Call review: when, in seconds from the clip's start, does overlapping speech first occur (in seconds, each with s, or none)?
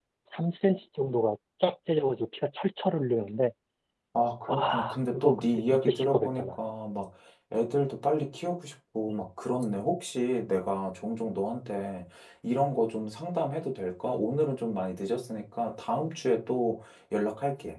4.5 s